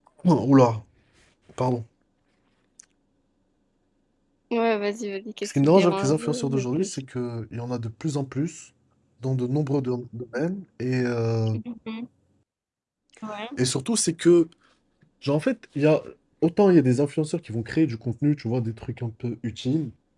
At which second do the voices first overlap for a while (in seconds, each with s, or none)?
5.4 s